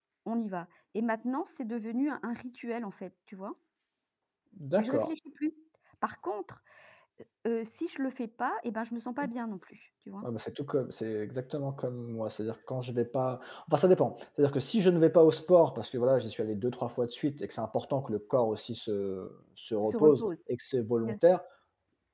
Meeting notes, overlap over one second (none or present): none